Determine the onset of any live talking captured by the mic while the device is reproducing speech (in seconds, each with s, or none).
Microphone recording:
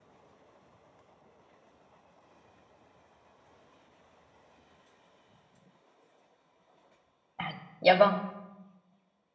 7.4 s